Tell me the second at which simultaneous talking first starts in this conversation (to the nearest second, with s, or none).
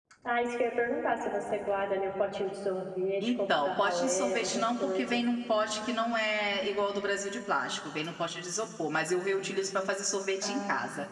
3 s